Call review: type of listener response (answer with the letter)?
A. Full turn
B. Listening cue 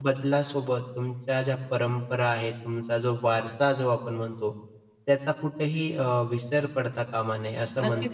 A